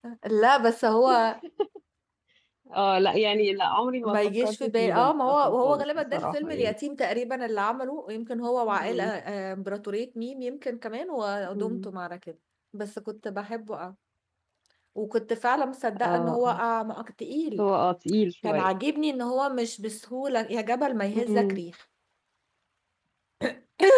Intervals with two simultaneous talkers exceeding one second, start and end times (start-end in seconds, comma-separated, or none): 4.0-6.7